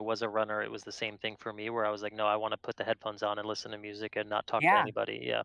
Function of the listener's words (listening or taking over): taking over